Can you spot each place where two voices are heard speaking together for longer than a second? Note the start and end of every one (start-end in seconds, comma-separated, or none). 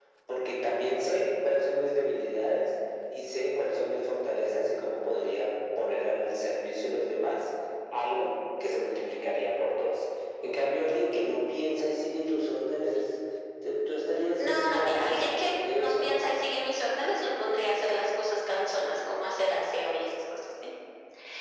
14.4-16.2